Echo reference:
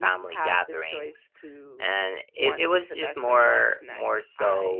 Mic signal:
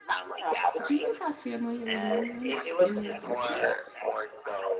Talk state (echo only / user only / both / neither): both